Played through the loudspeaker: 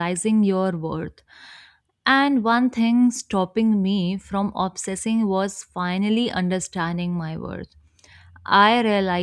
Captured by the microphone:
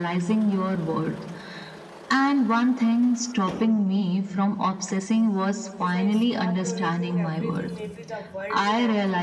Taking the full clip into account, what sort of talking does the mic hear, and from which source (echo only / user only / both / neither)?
both